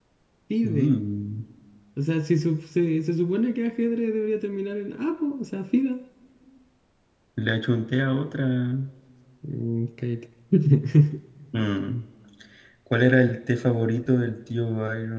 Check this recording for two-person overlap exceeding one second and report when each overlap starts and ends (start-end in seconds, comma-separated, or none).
none